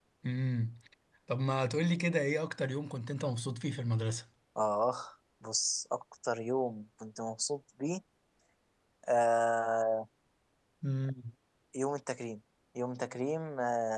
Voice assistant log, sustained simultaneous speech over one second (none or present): none